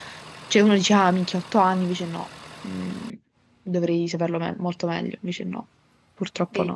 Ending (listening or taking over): taking over